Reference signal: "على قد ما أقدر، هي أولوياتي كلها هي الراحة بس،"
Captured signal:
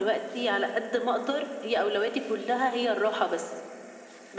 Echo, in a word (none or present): present